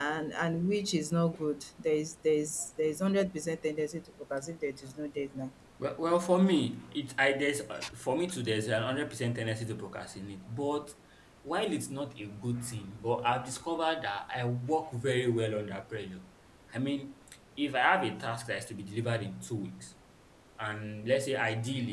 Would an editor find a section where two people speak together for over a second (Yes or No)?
No